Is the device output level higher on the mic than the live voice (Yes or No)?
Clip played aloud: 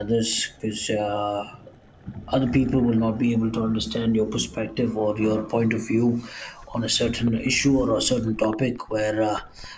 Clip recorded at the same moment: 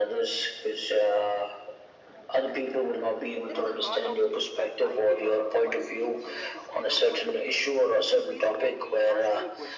Yes